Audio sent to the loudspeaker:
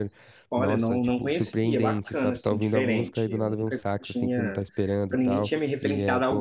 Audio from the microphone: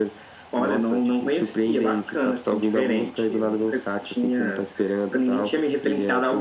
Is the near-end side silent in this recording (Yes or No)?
Yes